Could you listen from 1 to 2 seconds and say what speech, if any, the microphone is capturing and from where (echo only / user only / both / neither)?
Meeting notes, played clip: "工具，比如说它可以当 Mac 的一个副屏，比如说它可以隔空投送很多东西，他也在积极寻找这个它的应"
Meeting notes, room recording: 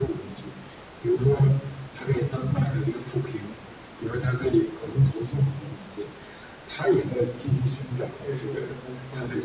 echo only